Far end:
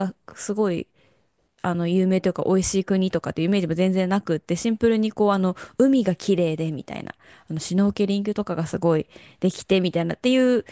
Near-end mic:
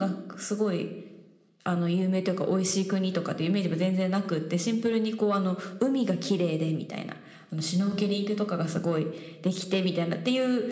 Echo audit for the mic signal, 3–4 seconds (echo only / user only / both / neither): echo only